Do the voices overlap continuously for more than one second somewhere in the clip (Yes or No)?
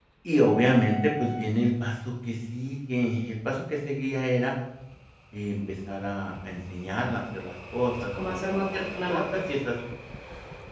Yes